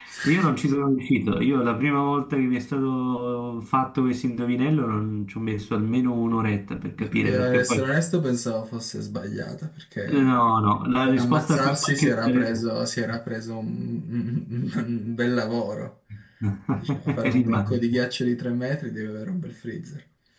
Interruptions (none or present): present